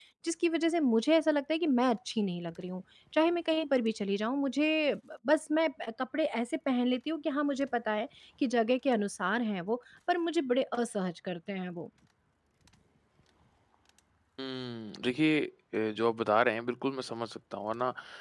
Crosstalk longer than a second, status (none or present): none